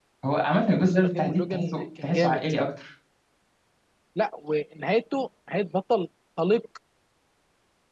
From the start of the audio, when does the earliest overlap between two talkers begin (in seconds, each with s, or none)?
0.9 s